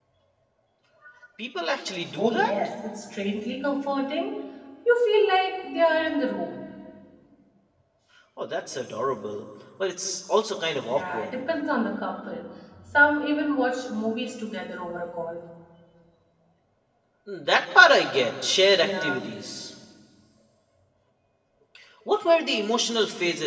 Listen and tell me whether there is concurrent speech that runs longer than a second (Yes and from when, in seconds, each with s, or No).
No